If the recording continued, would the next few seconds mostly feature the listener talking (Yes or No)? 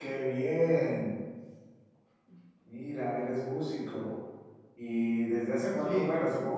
No